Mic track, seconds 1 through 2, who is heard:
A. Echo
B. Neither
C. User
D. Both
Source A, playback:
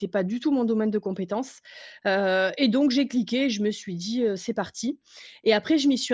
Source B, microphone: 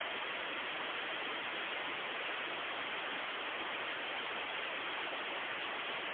B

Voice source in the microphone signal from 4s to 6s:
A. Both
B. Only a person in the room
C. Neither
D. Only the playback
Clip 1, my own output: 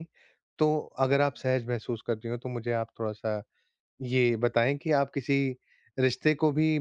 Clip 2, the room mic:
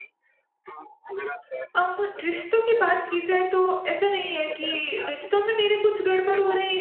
A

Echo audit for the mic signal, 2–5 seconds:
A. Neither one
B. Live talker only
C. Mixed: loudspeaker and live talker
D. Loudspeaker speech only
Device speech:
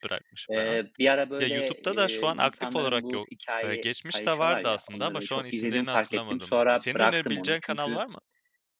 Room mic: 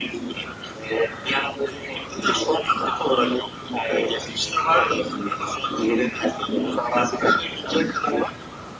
D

